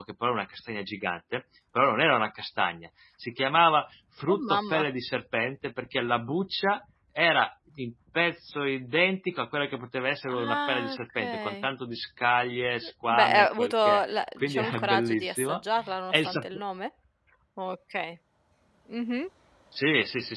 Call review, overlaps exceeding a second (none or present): present